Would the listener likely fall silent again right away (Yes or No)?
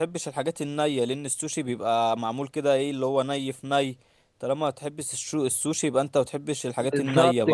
No